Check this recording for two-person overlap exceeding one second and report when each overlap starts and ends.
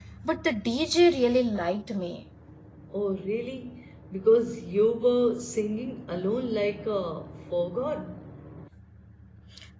none

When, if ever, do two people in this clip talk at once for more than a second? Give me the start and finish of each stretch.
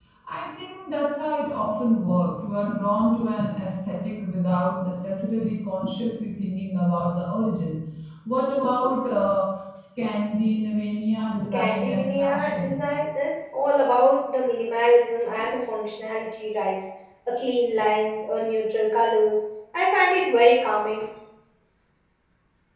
11.5-12.8

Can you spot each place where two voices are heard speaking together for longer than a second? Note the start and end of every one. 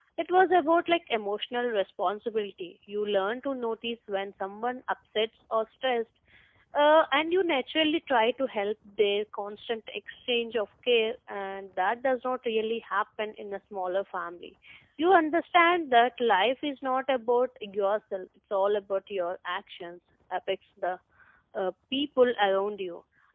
none

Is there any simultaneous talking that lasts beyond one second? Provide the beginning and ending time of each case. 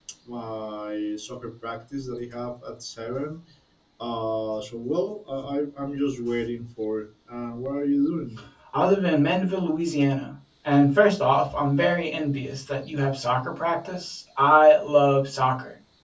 none

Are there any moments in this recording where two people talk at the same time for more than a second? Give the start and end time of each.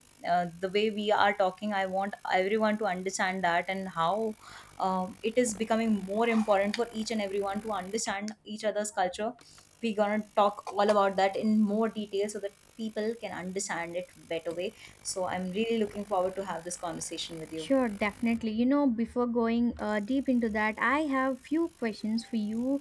none

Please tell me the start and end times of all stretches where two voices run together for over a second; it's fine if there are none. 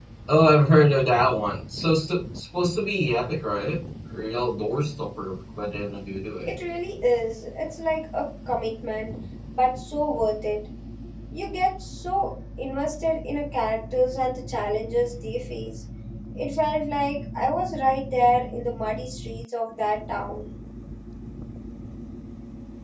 none

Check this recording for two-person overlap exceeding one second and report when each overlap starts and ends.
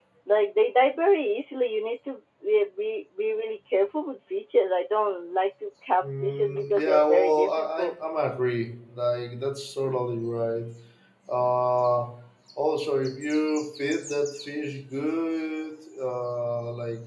6.0-7.9

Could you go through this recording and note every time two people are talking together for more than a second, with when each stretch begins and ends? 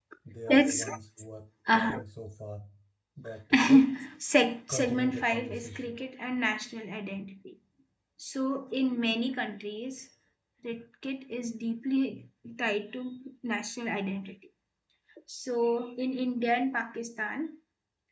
4.7-6.0

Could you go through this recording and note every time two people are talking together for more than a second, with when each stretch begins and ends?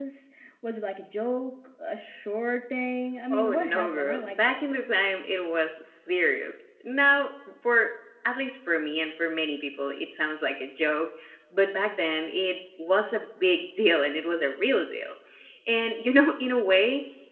3.3-4.8

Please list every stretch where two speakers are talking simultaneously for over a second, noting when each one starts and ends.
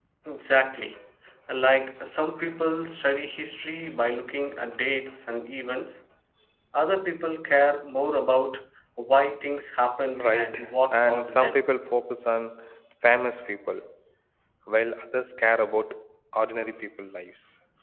10.2-11.6

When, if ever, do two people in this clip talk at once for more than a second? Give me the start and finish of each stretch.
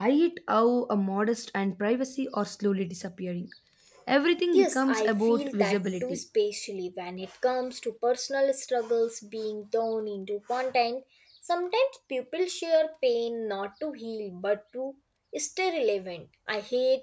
4.5-6.2

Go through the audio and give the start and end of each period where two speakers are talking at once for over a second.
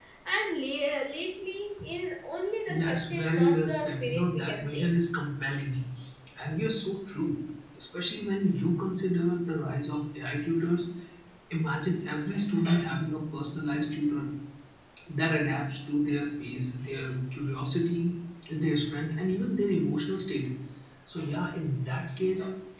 2.7-4.9

